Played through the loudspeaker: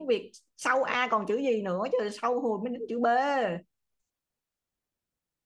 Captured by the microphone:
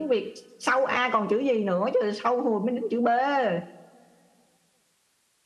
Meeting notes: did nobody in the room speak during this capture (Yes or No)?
Yes